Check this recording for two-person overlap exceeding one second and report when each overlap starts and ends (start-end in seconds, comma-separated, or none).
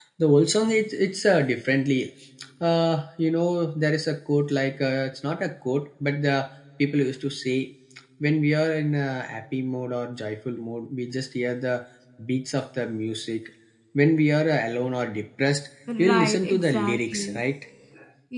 16.0-17.4